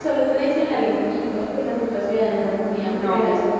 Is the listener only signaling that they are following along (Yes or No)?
Yes